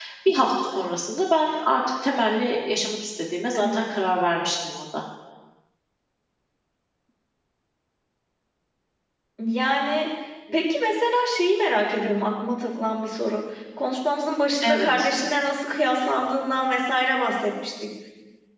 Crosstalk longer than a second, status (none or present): none